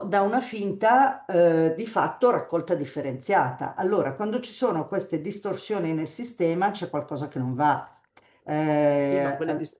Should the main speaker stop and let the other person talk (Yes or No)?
Yes